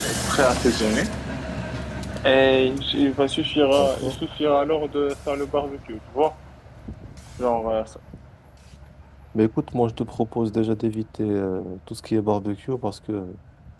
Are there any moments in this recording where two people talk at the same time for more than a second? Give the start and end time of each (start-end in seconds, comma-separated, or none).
none